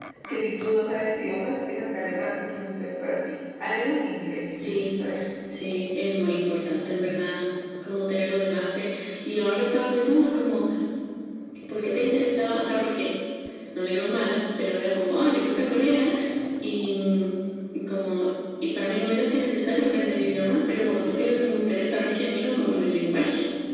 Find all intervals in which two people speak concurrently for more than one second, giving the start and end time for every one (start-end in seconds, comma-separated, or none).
none